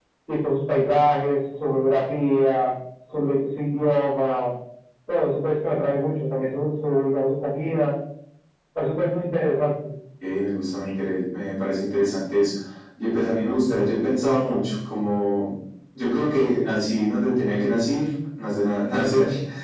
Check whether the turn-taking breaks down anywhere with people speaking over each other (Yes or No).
No